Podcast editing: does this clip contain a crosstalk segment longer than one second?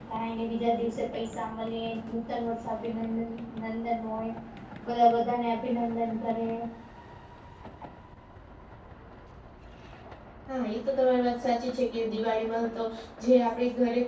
No

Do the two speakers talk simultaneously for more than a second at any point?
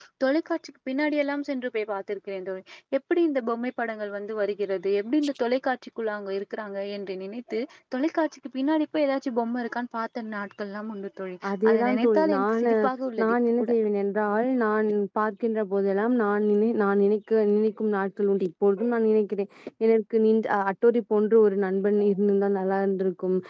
Yes, from 11.5 s

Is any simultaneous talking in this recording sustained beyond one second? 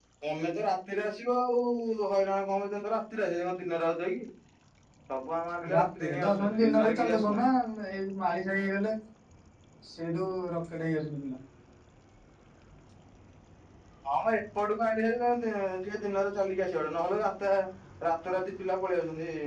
Yes, from 5.7 s

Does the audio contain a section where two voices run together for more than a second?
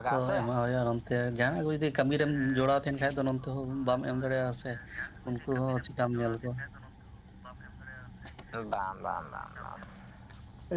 No

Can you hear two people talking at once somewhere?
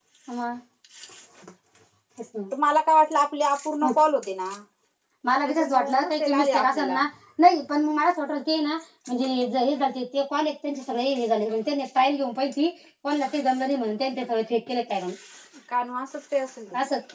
Yes, from 5.4 s

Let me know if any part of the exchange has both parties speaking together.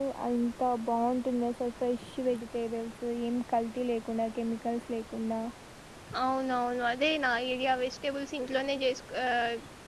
No

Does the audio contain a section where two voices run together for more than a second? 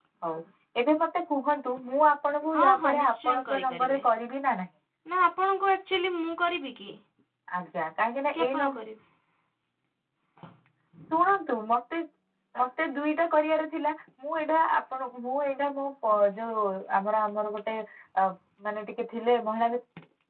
Yes, from 2.5 s

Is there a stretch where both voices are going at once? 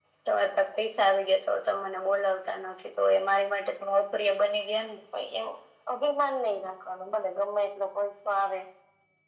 No

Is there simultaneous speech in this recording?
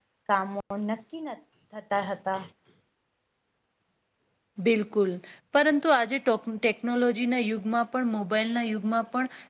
No

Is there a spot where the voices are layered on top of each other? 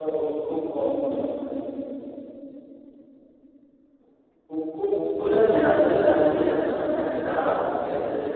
No

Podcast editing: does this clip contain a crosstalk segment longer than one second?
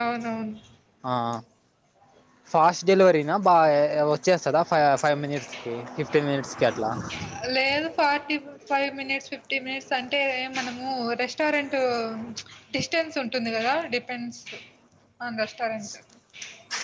No

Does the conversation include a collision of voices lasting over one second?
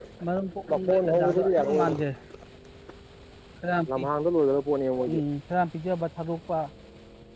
Yes, from 0.7 s

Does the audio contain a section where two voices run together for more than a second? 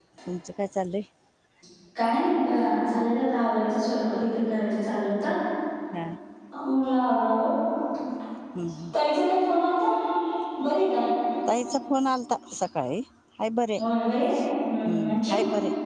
No

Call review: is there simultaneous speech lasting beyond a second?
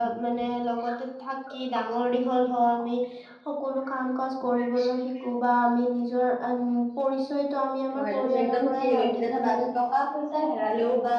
Yes, from 8.0 s

